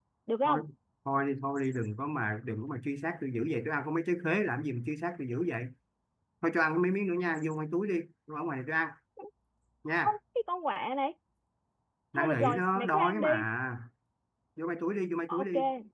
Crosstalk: present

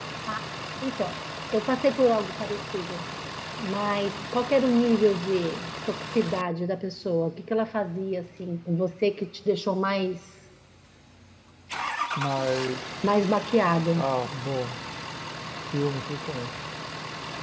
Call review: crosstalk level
none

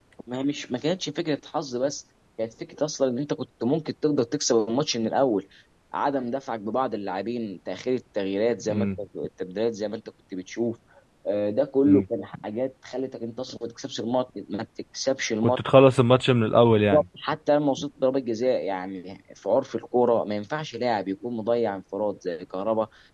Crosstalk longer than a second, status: none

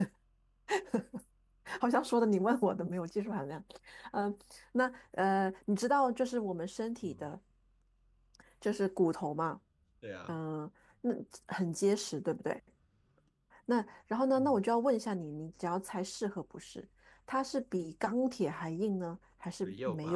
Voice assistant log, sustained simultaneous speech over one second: none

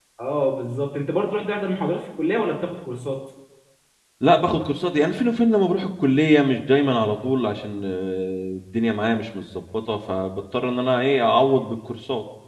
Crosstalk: none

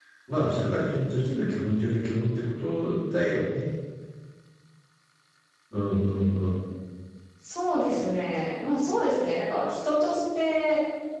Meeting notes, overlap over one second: none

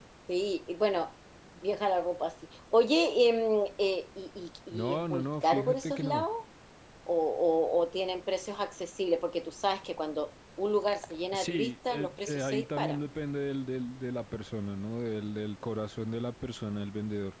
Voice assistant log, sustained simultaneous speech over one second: present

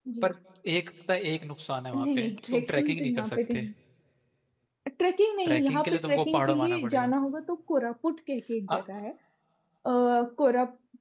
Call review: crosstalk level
present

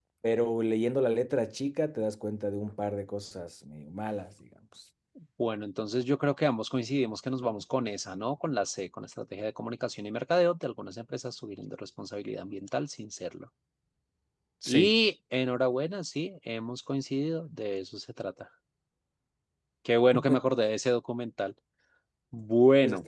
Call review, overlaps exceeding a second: none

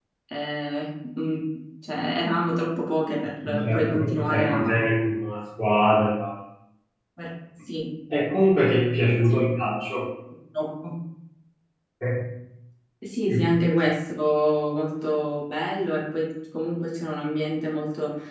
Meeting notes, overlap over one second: present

